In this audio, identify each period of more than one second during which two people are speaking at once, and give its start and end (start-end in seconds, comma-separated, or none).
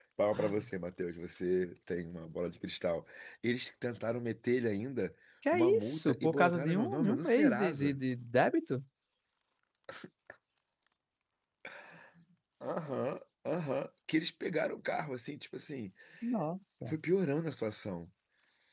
5.5-8.0